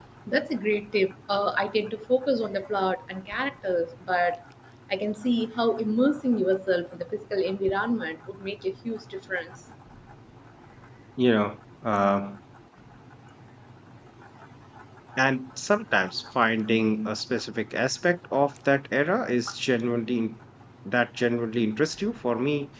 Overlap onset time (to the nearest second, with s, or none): none